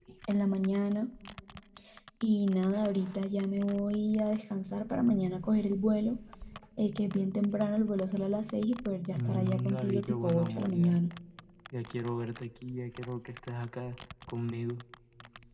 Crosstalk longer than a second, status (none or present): present